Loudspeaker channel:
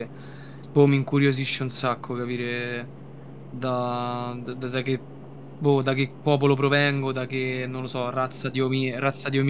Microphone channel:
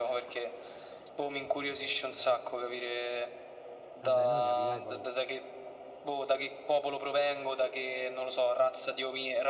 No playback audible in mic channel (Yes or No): No